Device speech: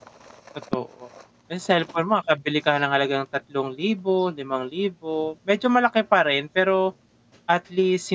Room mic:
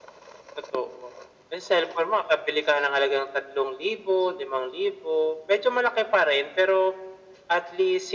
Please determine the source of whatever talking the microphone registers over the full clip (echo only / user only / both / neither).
echo only